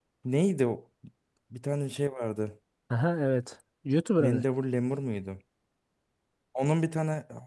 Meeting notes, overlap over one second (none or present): none